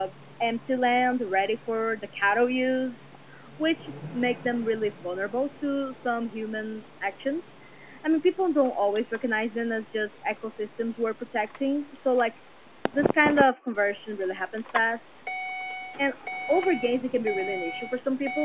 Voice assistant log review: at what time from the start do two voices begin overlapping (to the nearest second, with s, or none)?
none